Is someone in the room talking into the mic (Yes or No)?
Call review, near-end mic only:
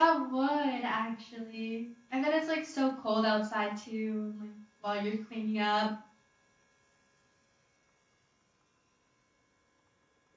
Yes